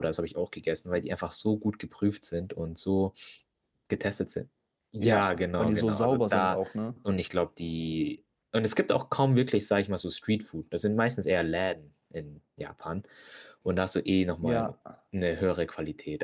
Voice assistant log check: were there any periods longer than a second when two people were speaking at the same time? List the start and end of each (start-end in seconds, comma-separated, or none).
5.0-6.6